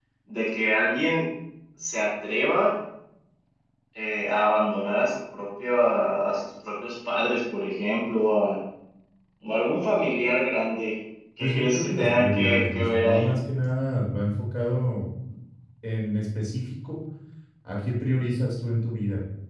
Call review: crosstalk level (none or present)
present